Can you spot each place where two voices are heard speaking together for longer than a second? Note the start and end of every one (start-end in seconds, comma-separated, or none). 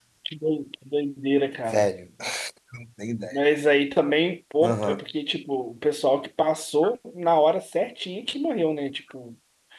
none